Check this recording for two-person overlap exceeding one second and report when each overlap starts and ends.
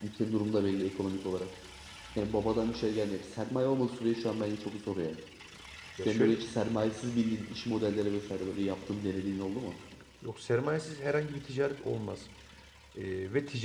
none

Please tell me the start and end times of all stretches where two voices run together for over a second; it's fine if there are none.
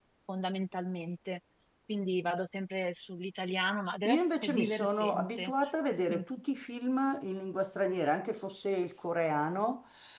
4.1-5.5

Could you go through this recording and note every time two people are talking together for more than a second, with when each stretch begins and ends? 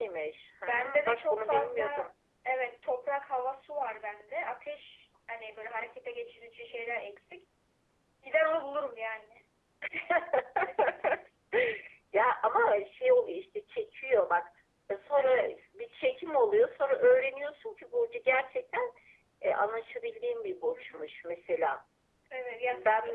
0.6-2.1

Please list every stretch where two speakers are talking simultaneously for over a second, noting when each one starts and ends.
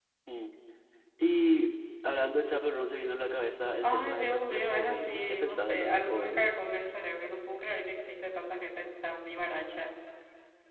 3.8-6.5

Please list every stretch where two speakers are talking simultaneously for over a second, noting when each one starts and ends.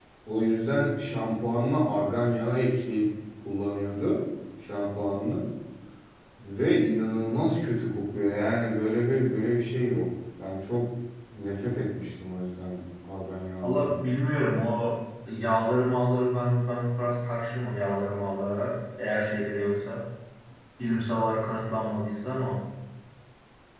none

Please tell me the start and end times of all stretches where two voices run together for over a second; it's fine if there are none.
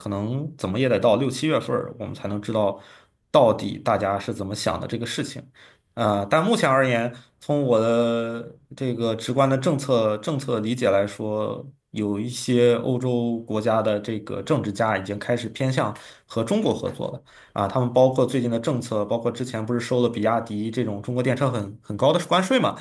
none

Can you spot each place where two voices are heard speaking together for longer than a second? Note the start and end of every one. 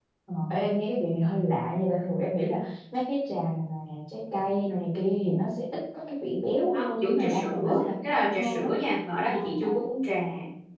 6.7-8.7

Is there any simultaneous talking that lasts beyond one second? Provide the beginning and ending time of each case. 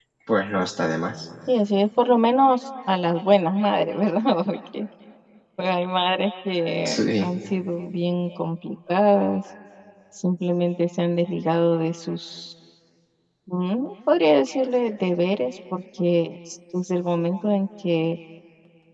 none

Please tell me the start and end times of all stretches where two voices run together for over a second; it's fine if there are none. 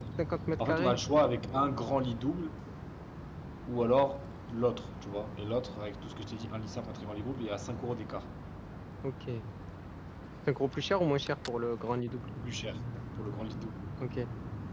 none

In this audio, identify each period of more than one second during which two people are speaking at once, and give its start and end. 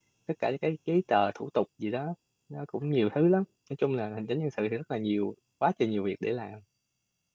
none

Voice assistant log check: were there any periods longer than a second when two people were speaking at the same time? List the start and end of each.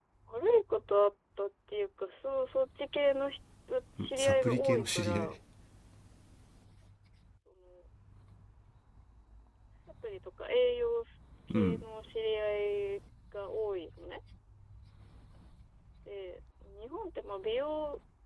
4.0-5.3

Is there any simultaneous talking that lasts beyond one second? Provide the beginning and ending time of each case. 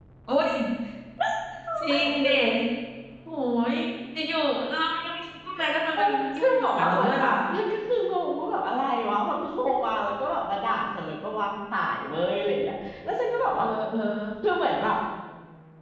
6.0-7.3

